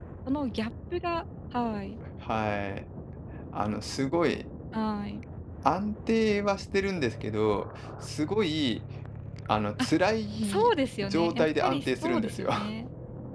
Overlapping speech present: Yes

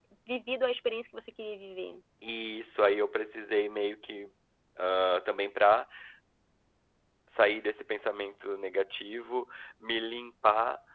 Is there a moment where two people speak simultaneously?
No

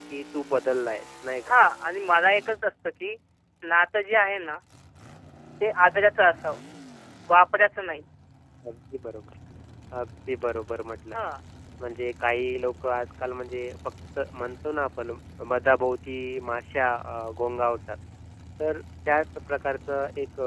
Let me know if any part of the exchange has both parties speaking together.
No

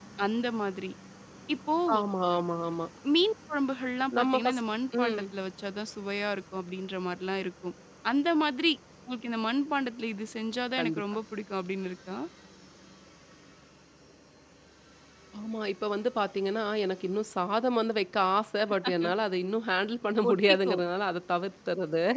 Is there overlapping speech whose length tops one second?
No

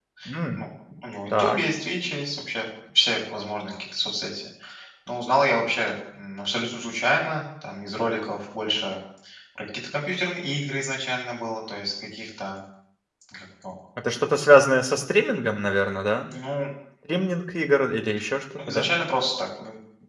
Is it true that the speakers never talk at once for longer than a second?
Yes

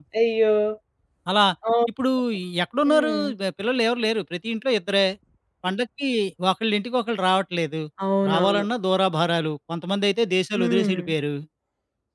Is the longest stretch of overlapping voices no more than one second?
Yes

